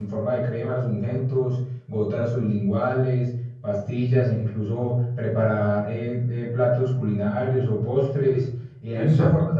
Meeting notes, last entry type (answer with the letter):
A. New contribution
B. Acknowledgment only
B